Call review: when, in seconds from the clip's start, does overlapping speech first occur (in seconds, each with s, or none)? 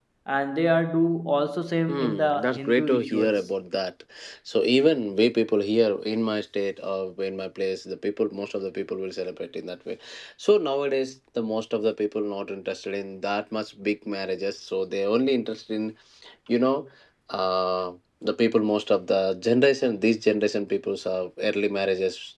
1.9 s